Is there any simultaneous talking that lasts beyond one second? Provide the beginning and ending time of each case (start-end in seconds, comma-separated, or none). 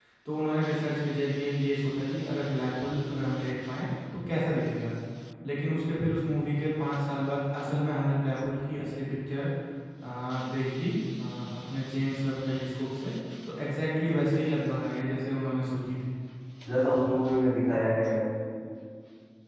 none